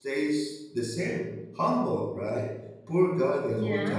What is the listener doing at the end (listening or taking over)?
listening